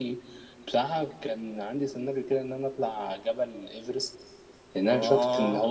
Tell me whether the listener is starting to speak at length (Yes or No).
No